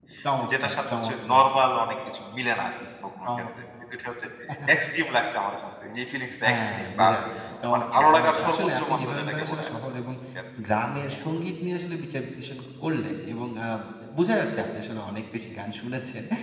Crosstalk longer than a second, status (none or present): present